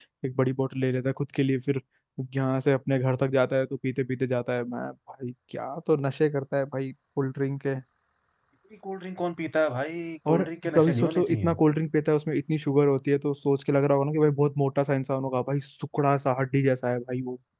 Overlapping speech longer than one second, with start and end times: 10.3-11.6

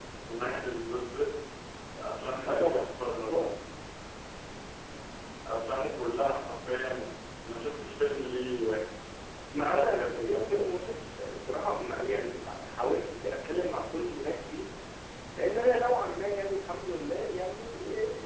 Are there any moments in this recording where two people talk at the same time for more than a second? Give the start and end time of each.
9.6-10.8

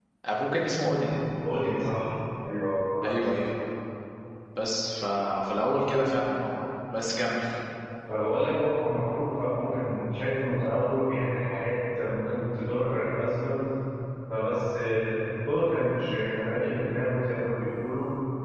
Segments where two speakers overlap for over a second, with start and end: none

